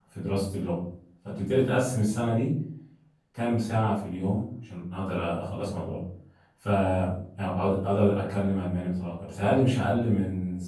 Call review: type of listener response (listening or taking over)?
listening